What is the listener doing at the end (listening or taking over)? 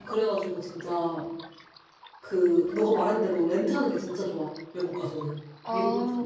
taking over